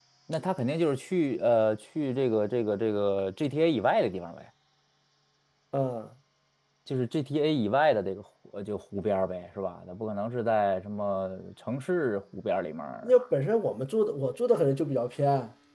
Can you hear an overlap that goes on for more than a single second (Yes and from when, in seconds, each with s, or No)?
No